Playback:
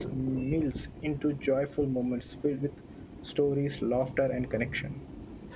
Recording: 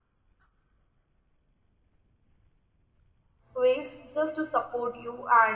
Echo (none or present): none